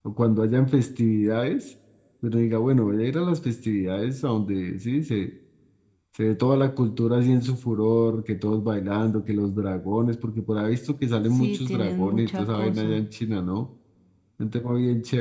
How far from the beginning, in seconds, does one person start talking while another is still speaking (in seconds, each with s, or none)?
11.3 s